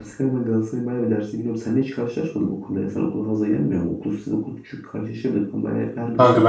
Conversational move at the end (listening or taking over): taking over